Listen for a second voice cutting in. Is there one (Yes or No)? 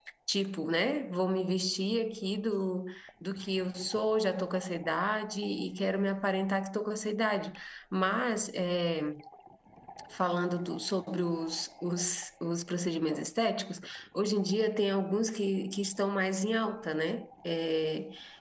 No